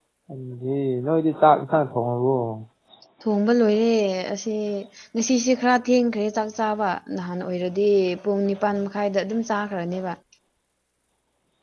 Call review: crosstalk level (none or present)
none